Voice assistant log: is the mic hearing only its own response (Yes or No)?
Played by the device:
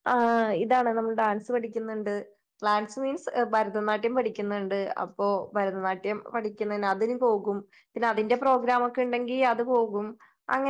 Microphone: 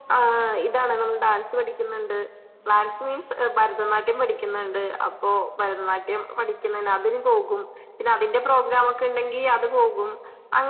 Yes